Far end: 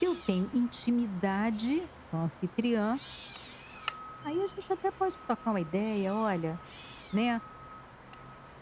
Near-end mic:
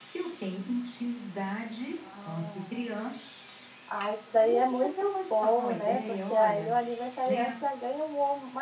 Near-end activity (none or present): present